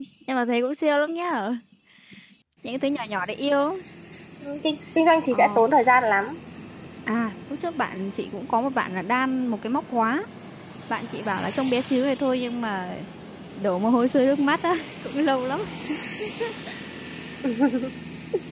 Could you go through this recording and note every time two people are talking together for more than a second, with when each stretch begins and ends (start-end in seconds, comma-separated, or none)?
none